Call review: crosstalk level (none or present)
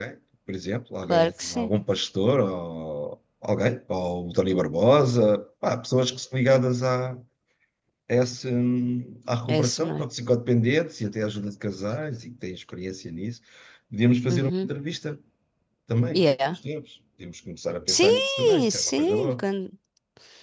present